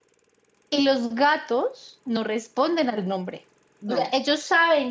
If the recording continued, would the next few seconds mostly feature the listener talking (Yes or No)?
No